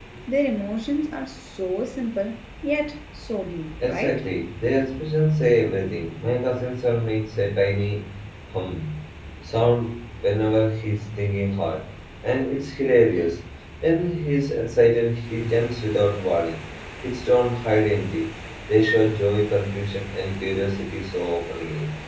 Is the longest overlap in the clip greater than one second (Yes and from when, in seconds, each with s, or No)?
No